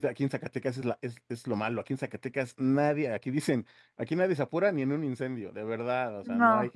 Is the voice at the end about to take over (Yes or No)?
No